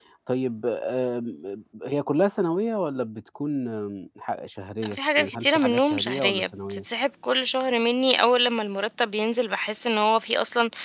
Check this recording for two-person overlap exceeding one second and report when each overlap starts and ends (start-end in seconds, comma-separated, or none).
4.8-6.8